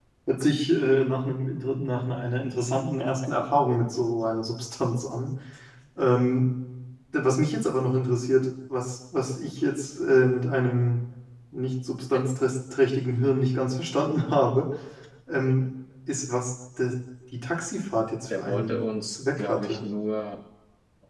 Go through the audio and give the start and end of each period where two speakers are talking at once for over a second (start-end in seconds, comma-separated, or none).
18.4-19.9